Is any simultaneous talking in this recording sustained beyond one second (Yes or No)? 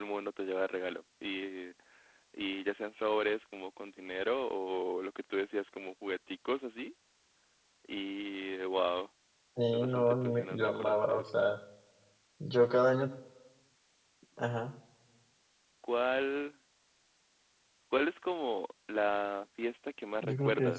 Yes